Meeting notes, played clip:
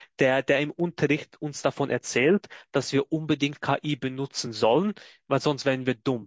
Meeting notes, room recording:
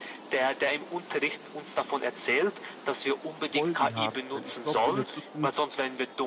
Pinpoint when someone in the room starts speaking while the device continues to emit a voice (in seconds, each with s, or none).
3.3 s